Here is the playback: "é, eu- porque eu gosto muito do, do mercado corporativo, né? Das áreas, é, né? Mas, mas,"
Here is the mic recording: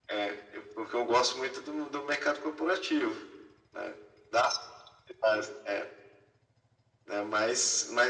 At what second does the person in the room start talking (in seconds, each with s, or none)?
none